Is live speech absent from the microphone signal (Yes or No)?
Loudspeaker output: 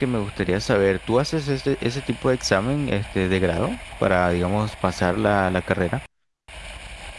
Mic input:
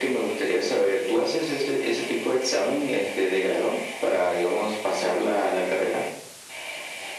Yes